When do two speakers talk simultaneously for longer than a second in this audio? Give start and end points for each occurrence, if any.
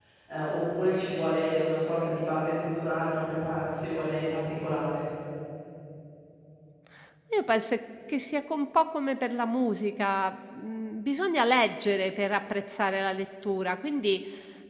none

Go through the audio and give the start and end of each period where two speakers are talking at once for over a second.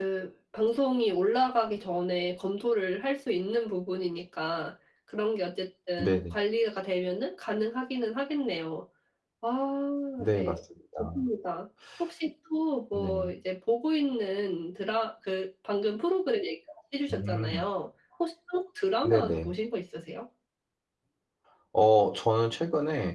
none

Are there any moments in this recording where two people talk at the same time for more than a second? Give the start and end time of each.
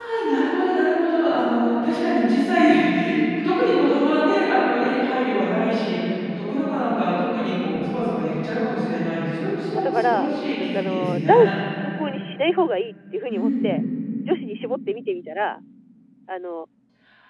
9.7-11.5

